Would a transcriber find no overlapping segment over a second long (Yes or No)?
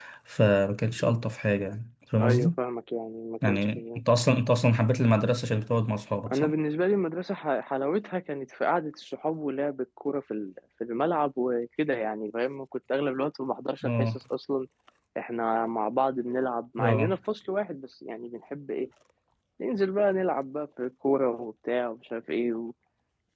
Yes